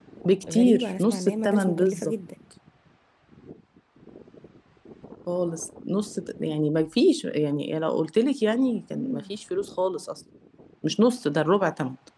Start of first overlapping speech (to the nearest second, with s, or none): 1 s